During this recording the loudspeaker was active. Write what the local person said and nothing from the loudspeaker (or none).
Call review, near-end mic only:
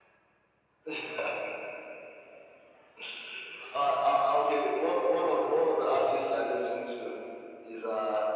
none